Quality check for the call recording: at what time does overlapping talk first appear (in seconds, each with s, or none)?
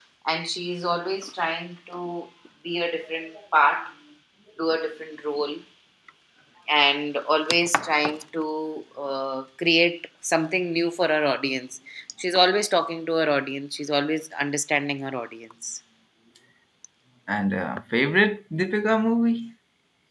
none